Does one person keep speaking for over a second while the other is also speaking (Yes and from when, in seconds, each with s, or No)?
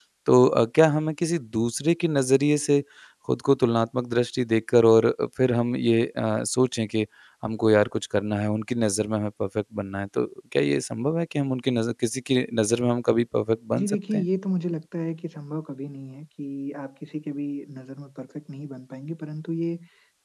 No